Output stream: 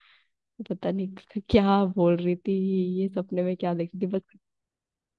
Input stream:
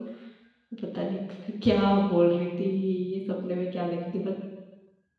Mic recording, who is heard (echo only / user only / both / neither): echo only